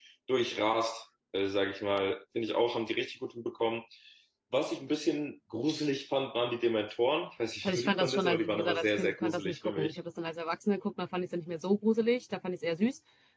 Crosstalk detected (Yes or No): Yes